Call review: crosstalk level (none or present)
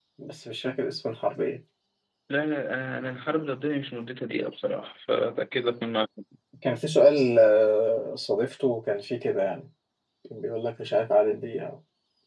none